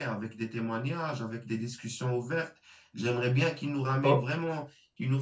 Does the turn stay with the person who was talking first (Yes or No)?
Yes